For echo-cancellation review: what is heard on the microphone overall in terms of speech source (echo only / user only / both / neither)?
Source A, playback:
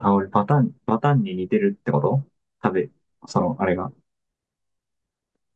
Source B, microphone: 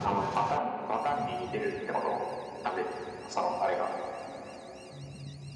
echo only